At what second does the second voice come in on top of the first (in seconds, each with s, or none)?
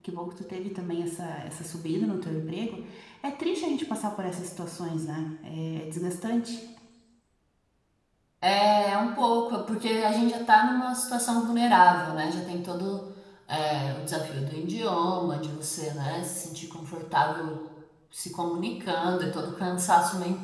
none